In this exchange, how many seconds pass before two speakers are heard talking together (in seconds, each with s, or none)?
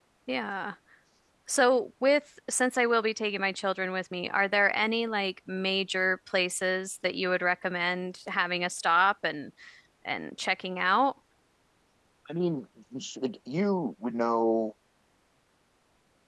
none